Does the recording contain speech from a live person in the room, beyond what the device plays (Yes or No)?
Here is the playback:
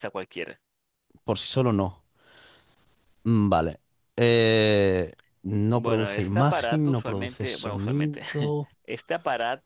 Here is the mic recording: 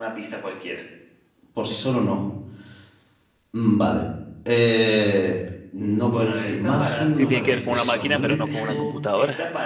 Yes